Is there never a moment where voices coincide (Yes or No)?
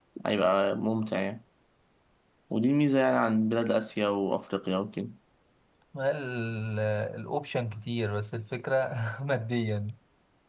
Yes